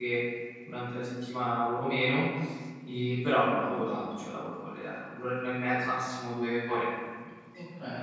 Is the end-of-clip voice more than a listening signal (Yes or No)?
Yes